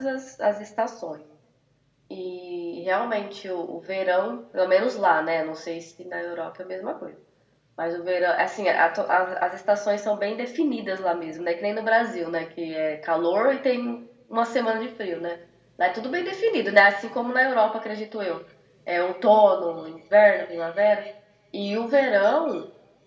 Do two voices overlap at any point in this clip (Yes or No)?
No